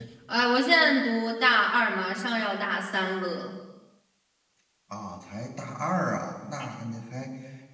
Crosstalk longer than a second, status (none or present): none